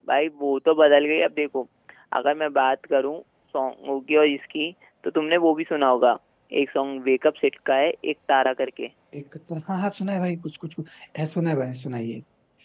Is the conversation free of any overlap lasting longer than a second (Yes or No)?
Yes